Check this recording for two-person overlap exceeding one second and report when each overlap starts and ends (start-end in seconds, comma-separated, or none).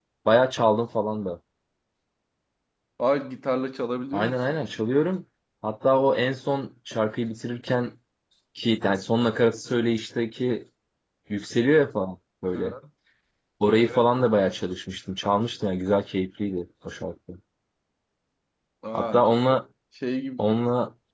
none